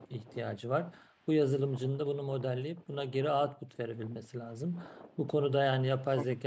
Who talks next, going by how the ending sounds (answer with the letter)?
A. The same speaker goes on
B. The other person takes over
A